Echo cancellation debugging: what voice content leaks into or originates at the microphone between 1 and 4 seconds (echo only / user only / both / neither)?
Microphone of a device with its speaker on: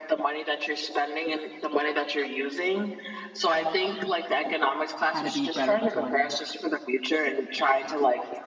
echo only